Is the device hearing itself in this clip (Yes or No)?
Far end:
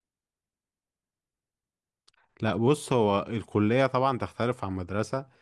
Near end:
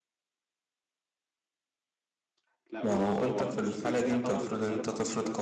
Yes